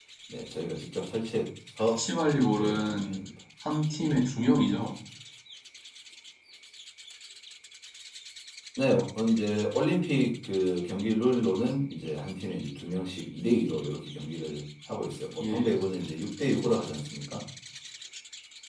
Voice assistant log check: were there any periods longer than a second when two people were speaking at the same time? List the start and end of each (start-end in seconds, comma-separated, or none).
1.8-3.2